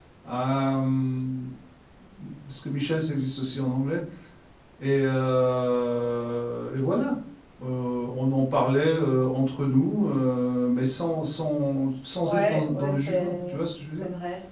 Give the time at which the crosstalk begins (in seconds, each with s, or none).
12.2 s